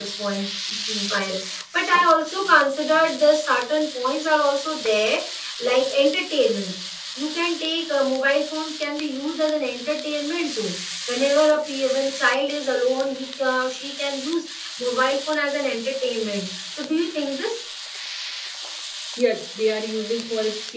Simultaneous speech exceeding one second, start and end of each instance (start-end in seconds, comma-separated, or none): none